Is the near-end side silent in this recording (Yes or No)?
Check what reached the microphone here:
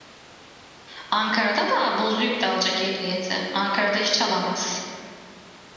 Yes